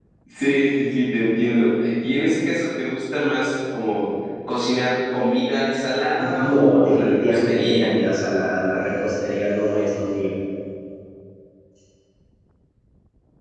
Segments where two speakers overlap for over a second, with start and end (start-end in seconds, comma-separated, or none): 6.4-7.9